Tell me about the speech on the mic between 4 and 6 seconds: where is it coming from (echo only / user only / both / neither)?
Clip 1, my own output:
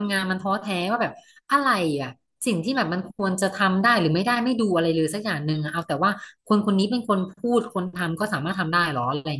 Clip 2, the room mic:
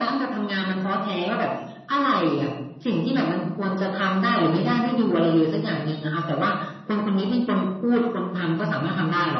echo only